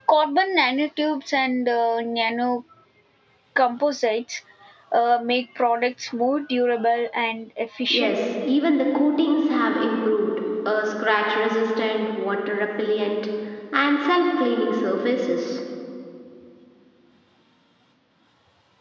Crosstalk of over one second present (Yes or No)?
No